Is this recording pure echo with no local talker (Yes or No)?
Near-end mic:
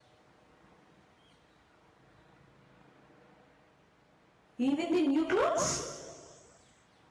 No